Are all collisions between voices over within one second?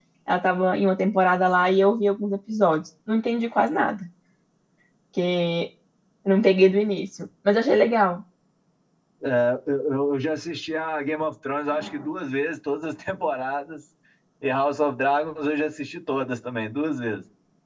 Yes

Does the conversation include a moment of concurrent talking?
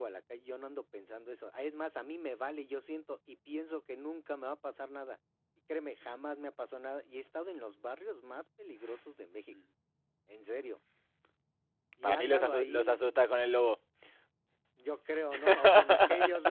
Yes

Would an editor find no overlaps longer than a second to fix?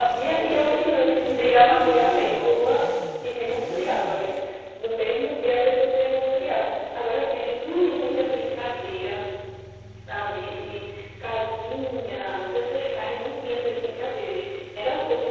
No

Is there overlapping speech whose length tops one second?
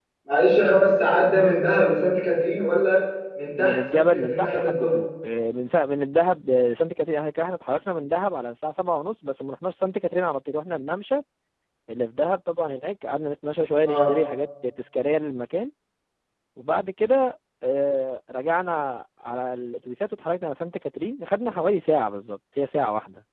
Yes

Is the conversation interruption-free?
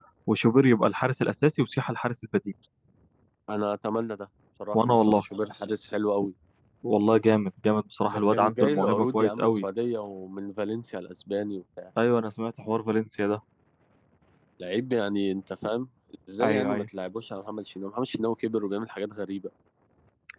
No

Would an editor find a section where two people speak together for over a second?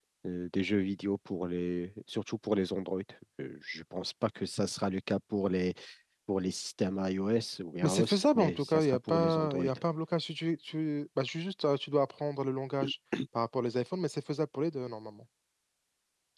Yes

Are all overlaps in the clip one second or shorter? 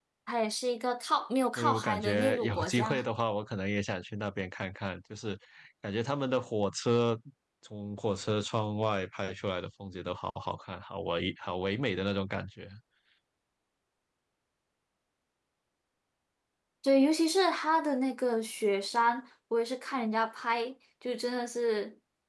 No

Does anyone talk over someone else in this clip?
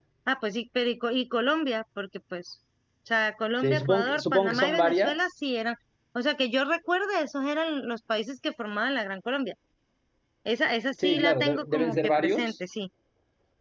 Yes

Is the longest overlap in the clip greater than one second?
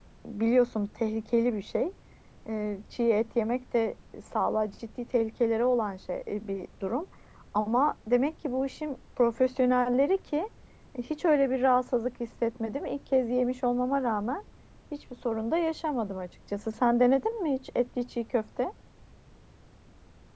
No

